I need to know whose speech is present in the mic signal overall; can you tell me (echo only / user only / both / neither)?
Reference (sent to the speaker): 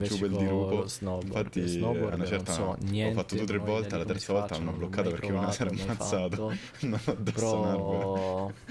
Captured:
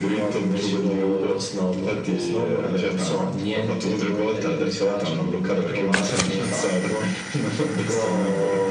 echo only